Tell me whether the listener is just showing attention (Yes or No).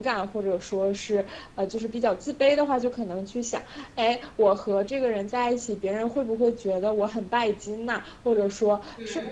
Yes